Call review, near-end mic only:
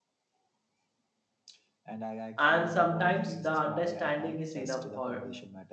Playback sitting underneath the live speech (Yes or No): Yes